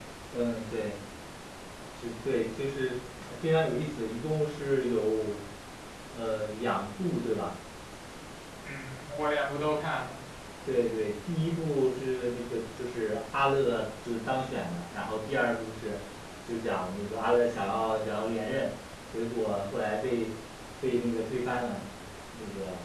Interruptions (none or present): none